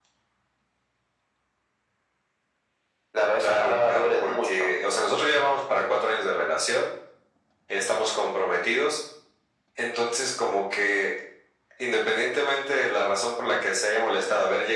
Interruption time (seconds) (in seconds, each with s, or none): 3.4 s